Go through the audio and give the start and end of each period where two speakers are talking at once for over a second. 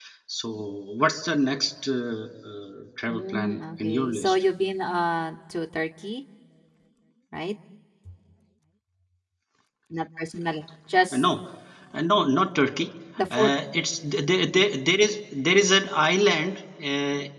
3.1-4.4

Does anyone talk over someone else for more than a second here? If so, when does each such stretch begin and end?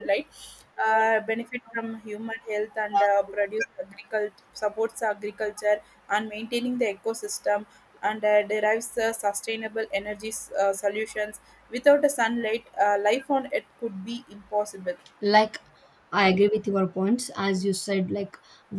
none

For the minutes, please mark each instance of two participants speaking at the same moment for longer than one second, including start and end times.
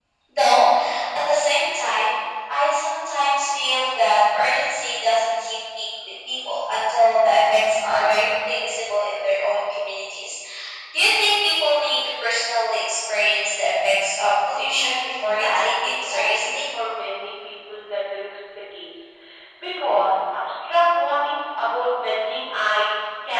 14.5-16.6

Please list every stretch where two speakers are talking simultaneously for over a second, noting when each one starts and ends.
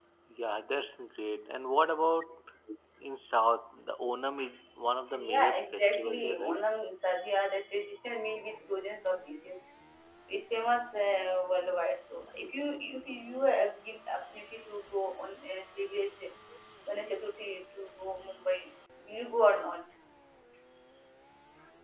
5.2-6.6

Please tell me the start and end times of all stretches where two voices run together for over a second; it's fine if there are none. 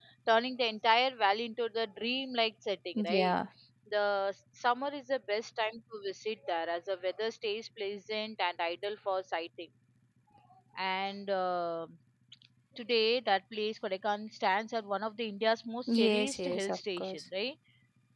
15.9-17.2

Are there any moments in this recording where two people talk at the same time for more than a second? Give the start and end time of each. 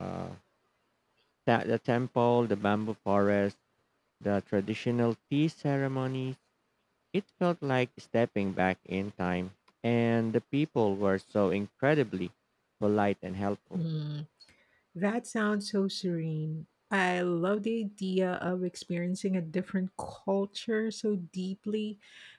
none

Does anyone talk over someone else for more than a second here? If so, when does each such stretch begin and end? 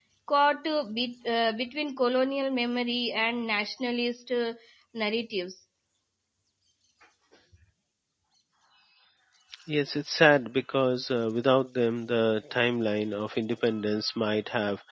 none

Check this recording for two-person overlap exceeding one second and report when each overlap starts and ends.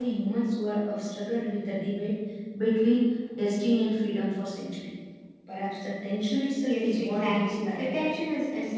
6.6-8.1

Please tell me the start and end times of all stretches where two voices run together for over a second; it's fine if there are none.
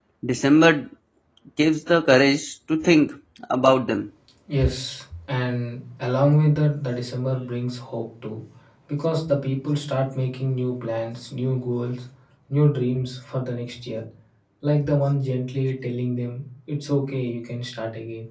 none

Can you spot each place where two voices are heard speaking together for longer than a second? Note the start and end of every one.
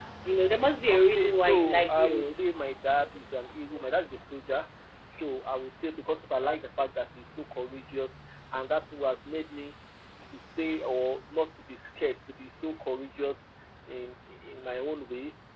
0.9-2.3

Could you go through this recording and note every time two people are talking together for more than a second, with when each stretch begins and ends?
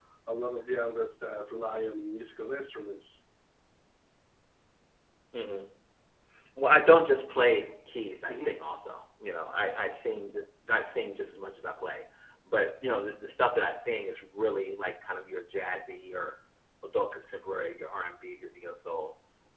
none

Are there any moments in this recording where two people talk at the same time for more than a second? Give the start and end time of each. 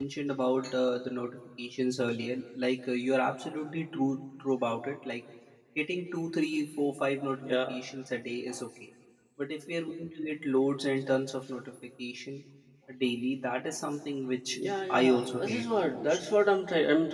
14.6-16.0

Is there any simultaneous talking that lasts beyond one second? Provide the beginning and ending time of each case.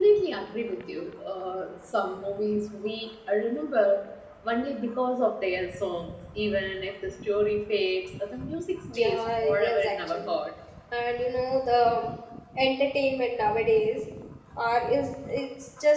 9.0-10.4

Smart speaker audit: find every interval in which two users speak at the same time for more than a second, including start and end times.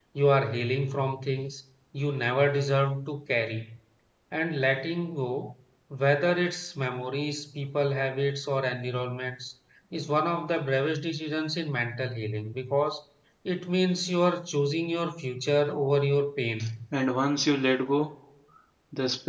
none

